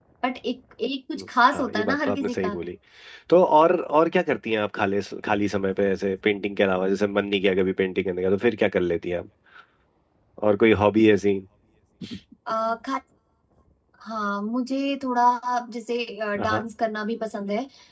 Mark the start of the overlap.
1 s

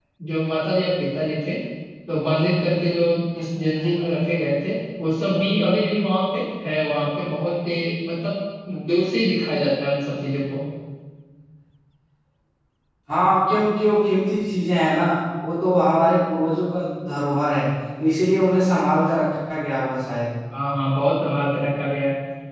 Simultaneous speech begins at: none

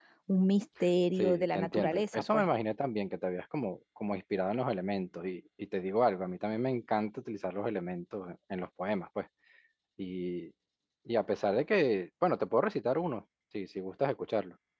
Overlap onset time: 1 s

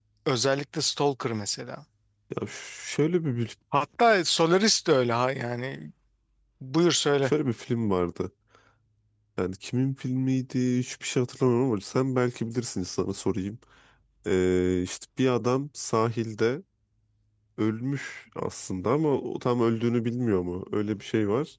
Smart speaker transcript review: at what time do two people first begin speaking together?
none

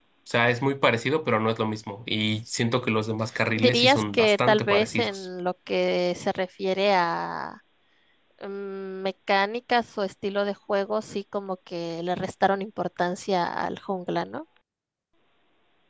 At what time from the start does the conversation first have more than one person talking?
4 s

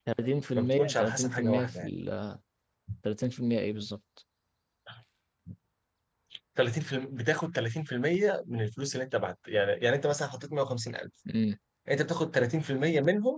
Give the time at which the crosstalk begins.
1 s

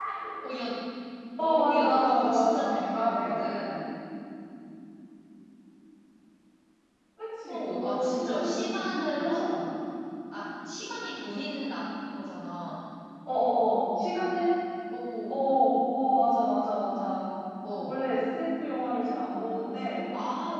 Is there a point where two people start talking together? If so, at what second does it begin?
1 s

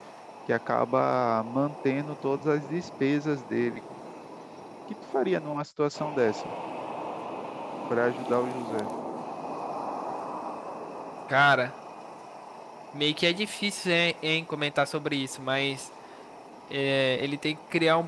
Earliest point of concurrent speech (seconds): none

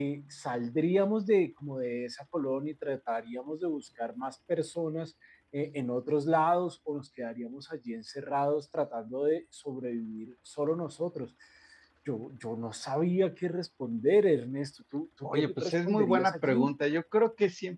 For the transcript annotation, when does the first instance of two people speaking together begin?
15 s

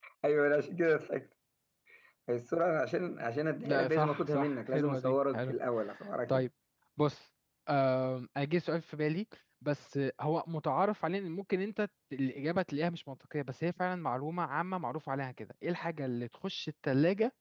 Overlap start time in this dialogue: 4 s

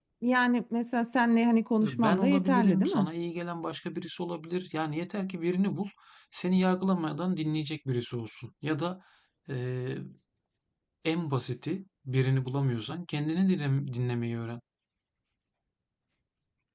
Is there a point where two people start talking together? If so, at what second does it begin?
2 s

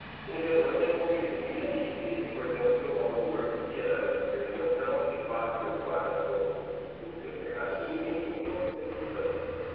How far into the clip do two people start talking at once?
none

